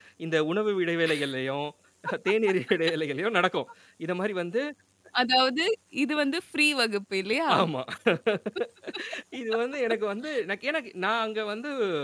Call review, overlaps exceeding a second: none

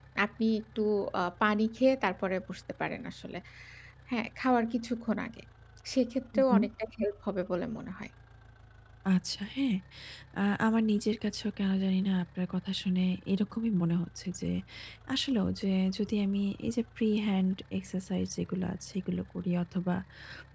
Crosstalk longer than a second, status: none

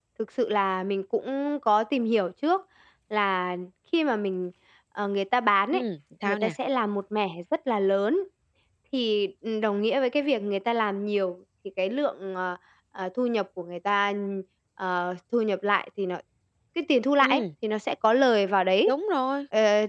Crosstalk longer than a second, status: none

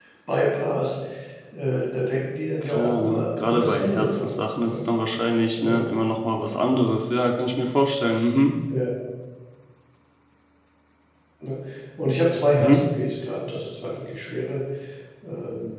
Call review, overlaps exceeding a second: present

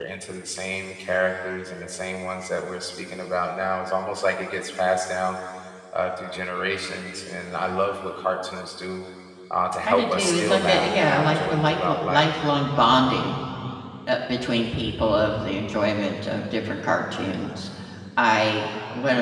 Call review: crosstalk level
present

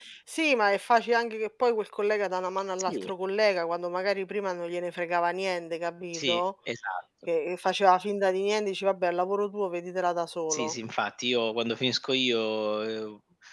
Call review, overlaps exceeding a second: none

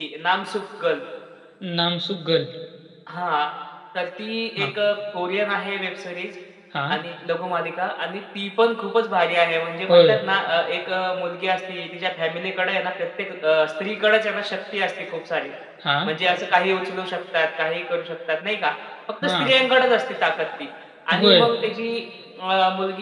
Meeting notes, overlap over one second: none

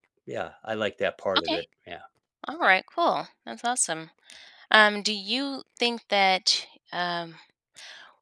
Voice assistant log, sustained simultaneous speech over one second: none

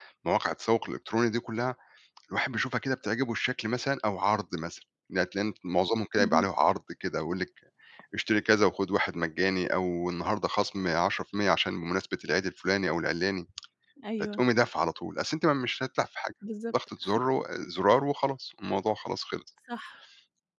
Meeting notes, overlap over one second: none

